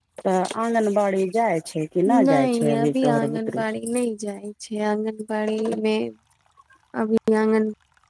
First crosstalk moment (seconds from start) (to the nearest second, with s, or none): 2 s